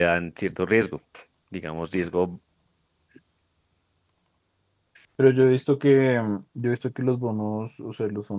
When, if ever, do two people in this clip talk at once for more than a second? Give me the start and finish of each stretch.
none

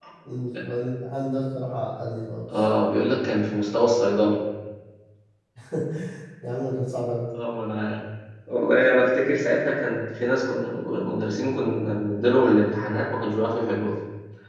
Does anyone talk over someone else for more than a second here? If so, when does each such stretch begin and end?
none

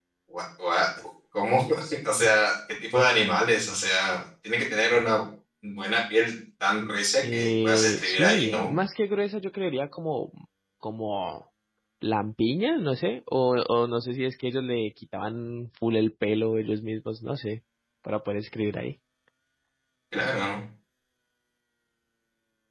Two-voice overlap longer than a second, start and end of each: 7.3-8.7

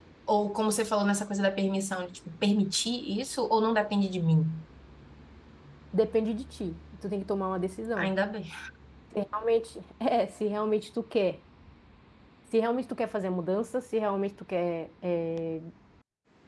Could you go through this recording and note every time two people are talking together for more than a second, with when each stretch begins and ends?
none

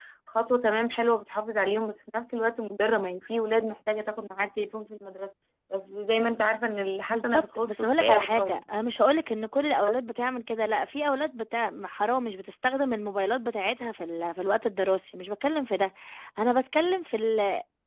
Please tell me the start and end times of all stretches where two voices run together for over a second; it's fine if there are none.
7.1-8.6

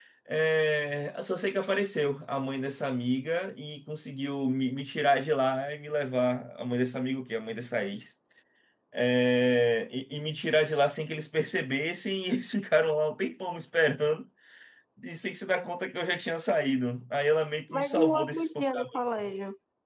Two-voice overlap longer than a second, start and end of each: 17.7-19.0

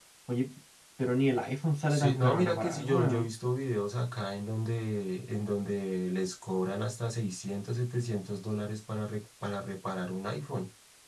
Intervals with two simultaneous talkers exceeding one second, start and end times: 1.9-3.3

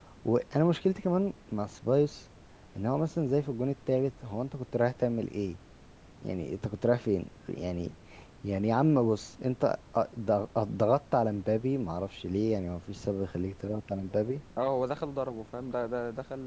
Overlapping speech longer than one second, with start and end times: none

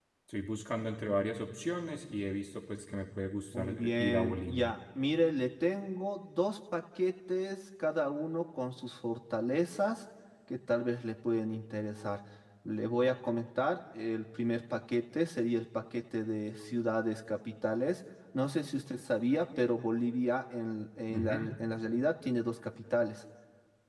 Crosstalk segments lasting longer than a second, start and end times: 3.5-4.7

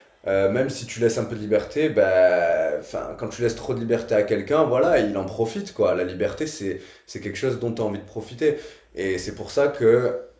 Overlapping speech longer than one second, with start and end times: none

